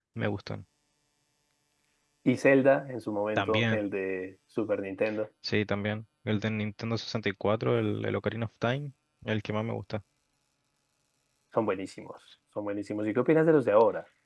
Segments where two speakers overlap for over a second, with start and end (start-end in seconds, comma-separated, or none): none